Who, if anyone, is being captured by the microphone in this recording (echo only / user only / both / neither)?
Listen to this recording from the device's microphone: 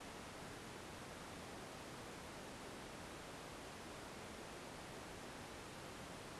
neither